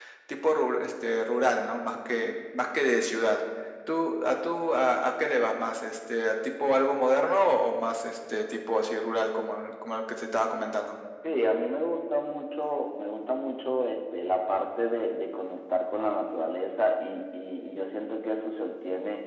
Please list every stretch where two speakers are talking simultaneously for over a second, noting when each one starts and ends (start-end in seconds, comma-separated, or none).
none